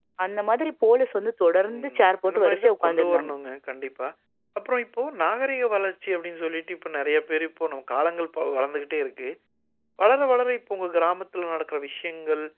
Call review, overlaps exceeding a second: present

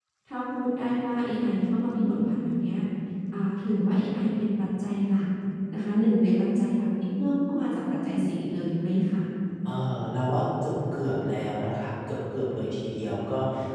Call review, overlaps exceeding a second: none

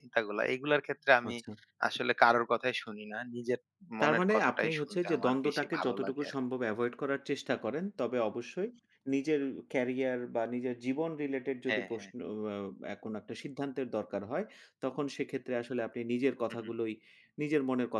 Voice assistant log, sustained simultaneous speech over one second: present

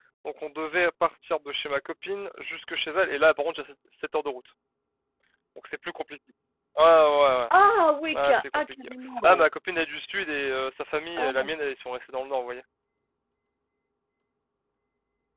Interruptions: present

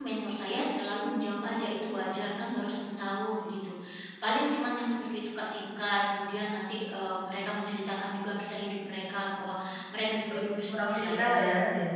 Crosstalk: present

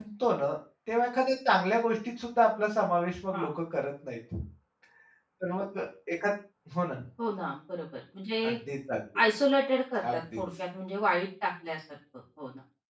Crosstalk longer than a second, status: none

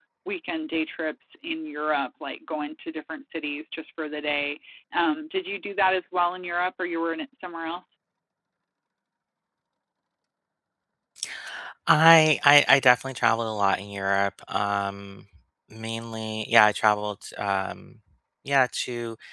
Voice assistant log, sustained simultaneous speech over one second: none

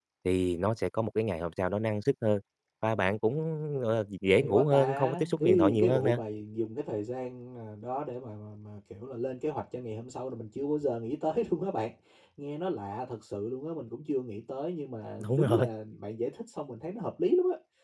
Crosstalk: present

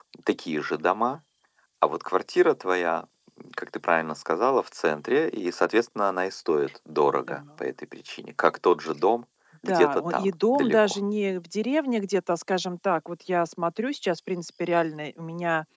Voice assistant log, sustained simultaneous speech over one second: present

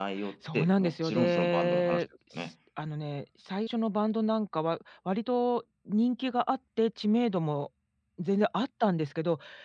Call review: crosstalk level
present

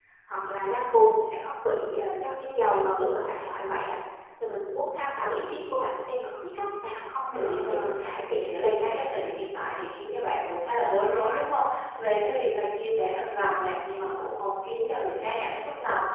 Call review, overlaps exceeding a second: present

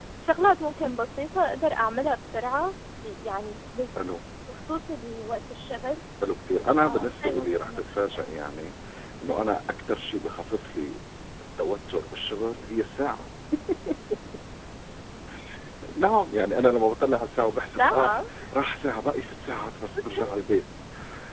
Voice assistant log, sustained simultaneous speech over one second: present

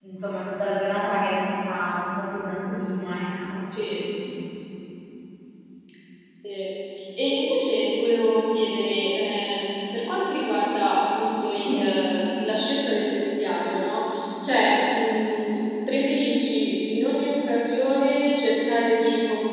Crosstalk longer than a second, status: none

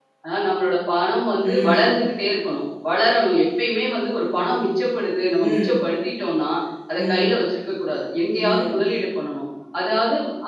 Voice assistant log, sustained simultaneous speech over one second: none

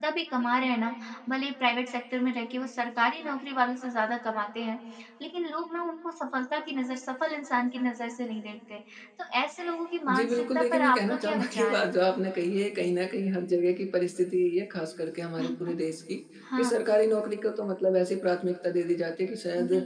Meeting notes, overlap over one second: present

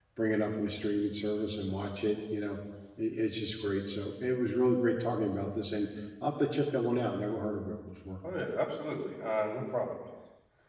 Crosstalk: none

